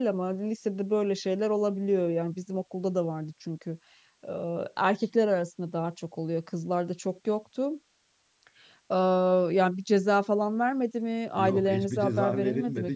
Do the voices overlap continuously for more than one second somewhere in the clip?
Yes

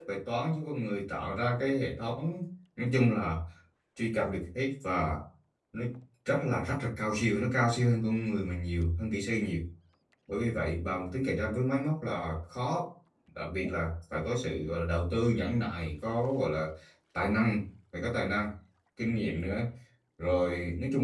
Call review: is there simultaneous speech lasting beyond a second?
No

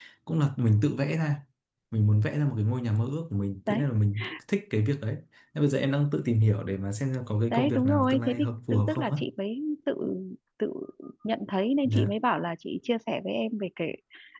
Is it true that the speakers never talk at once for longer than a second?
No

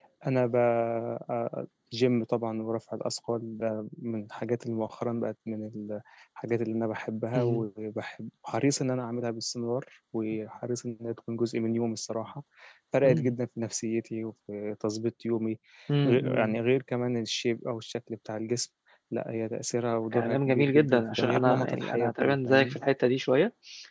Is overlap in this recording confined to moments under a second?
No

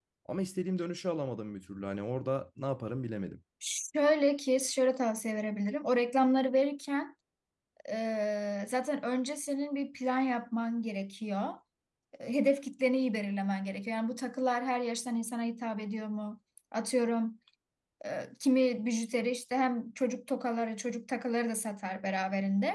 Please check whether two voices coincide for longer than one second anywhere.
No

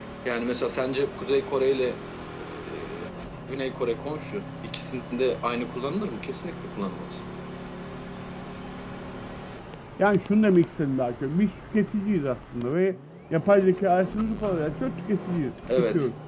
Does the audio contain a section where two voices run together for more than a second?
No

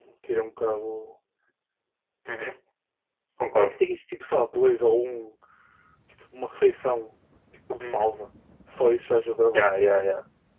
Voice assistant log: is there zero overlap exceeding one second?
Yes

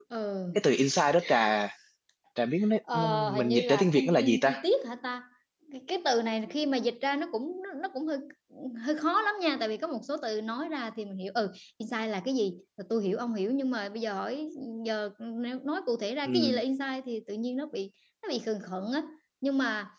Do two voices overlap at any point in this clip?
Yes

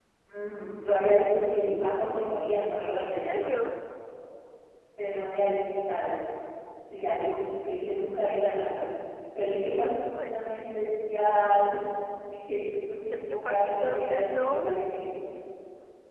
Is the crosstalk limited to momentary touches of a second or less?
No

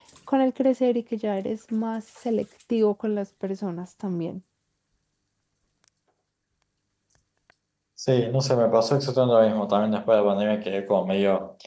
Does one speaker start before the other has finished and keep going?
No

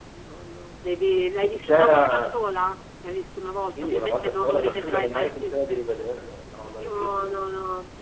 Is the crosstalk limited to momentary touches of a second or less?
No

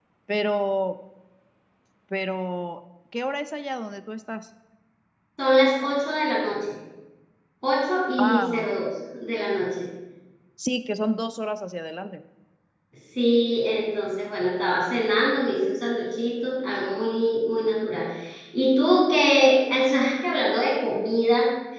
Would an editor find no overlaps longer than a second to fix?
Yes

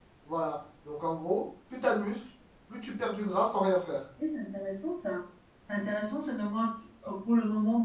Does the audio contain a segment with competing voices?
No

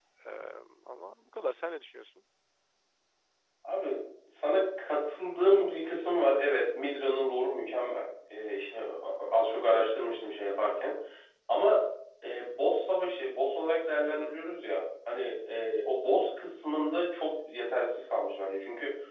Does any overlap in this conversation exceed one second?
No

